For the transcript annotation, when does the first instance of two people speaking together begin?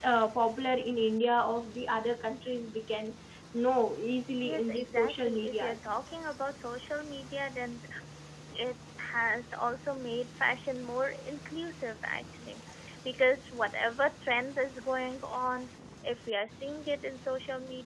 4 s

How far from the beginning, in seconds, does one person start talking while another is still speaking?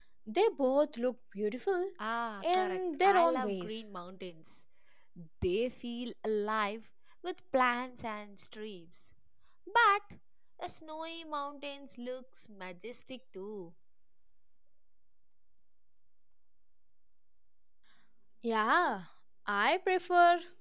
2 s

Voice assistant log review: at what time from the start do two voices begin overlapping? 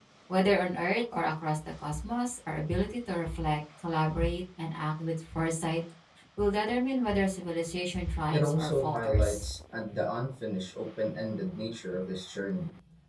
8 s

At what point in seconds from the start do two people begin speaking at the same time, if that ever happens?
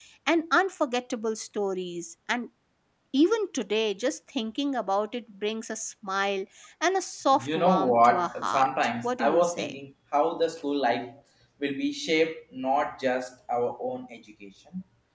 7 s

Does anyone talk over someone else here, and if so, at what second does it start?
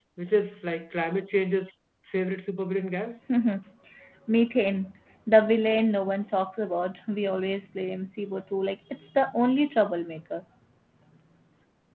none

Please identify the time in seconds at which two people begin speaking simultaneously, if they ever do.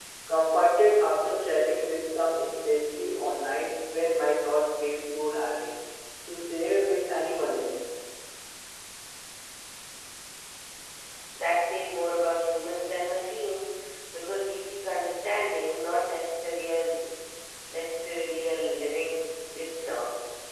none

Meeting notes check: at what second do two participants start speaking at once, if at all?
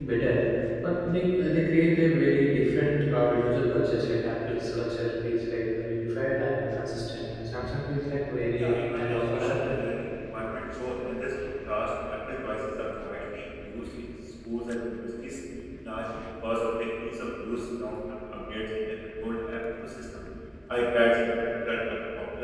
9 s

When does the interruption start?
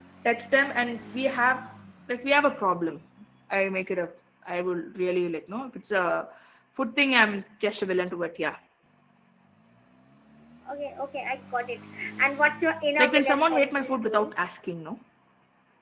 13 s

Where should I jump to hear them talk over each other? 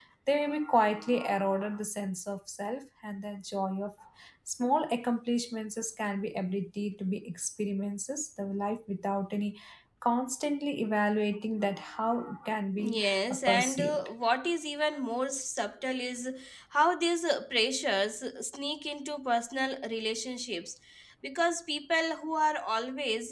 13 s

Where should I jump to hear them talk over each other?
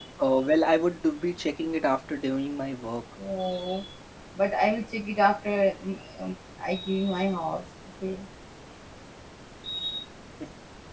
none

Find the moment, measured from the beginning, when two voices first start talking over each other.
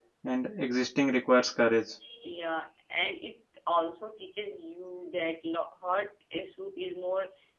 none

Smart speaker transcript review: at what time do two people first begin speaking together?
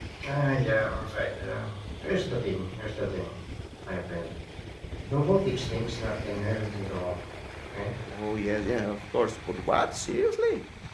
none

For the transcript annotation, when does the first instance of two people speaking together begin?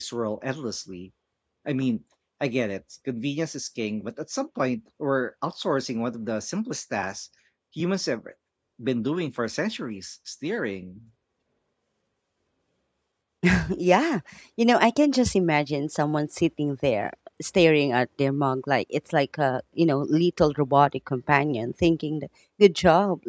none

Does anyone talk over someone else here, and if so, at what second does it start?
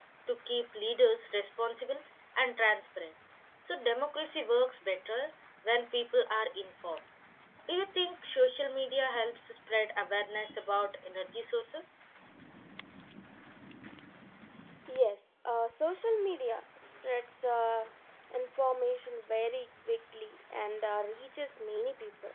none

